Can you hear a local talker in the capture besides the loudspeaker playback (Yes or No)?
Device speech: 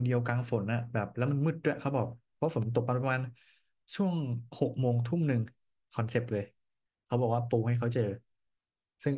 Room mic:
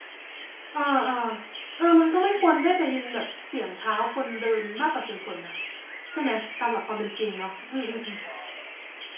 Yes